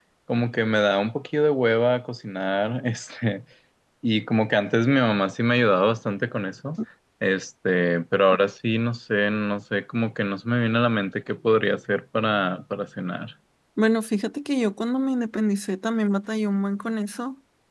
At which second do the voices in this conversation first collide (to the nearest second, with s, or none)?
none